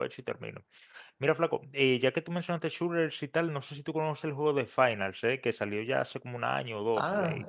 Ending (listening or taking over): taking over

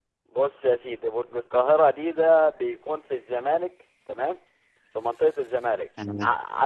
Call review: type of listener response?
listening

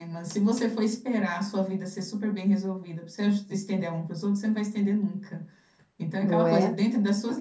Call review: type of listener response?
listening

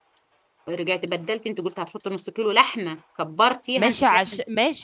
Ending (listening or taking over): taking over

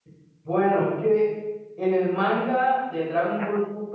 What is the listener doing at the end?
listening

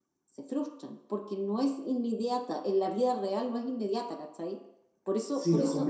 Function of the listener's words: taking over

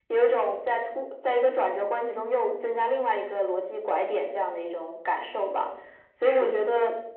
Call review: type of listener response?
listening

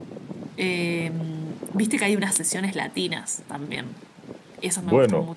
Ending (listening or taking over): taking over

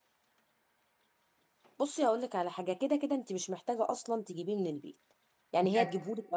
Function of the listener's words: listening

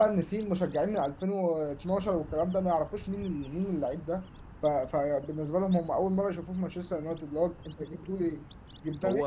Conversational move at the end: listening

